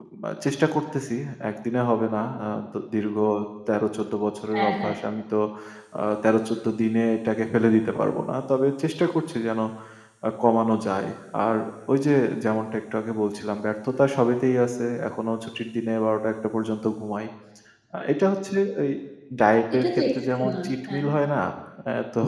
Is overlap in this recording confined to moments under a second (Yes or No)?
No